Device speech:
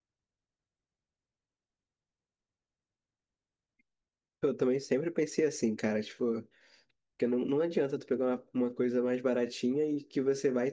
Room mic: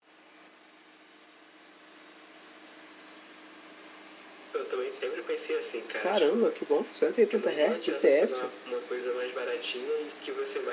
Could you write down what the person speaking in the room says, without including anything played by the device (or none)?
Caramba, que bom, 180 Hz, IPS.